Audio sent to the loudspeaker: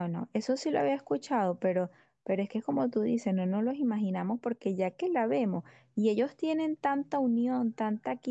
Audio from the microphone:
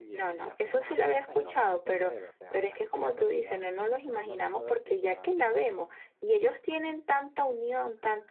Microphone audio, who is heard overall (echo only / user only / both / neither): both